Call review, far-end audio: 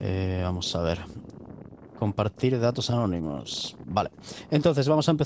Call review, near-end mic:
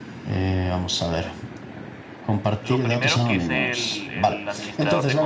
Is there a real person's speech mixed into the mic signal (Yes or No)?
Yes